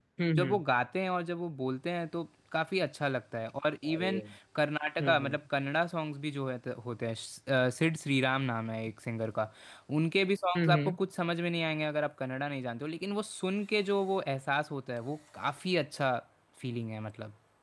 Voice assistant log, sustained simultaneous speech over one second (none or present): none